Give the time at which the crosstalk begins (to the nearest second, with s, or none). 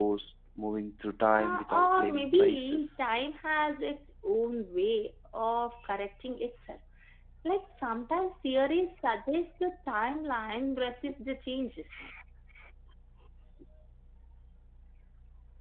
1 s